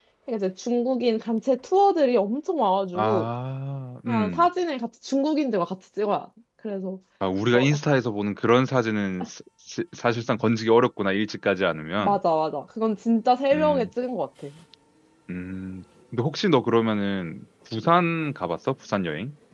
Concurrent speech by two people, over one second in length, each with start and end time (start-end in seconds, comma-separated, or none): none